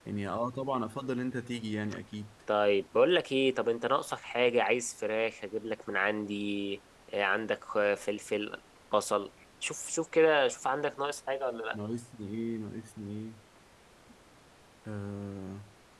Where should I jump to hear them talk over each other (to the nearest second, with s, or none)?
none